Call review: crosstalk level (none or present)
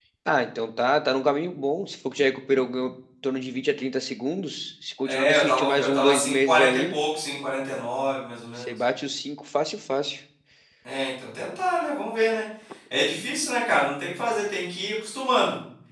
present